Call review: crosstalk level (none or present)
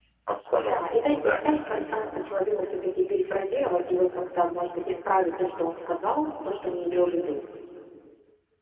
present